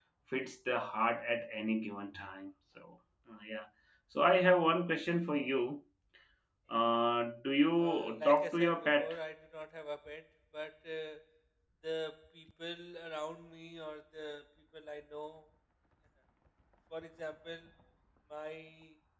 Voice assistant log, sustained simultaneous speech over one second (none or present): present